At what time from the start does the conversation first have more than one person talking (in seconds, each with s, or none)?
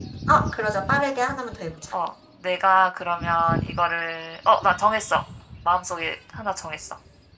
none